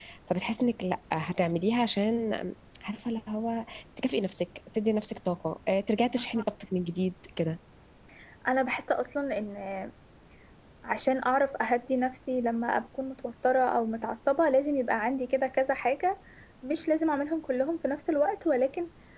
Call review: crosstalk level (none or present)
none